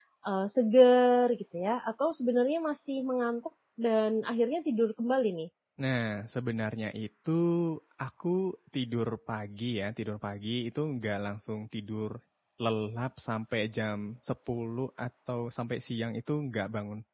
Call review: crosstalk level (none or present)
none